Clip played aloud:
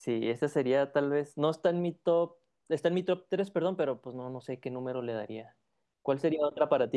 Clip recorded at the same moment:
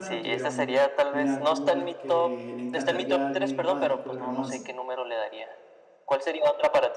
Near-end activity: present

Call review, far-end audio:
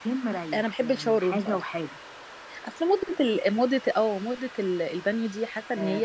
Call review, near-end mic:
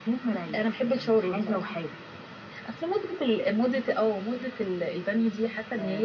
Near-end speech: none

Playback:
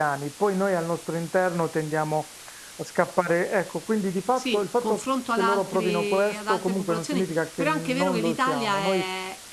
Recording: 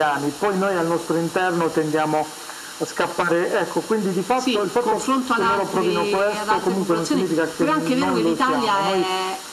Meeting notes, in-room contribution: none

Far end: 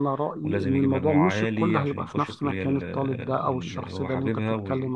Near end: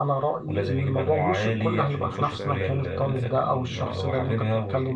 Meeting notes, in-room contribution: present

